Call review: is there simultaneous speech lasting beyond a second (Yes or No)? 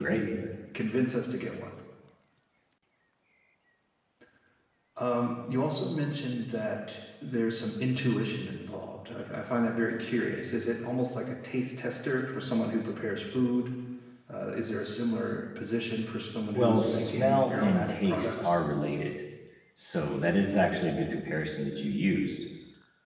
Yes